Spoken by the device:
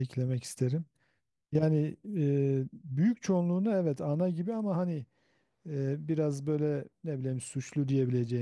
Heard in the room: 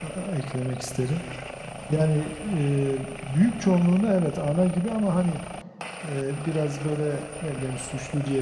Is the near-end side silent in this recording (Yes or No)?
Yes